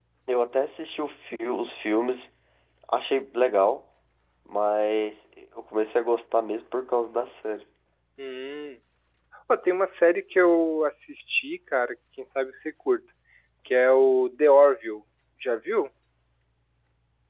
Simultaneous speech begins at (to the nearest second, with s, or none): none